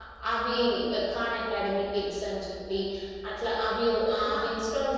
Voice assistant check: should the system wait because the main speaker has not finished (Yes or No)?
Yes